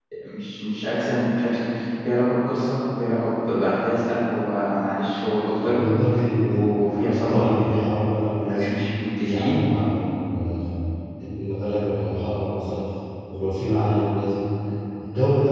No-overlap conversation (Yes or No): No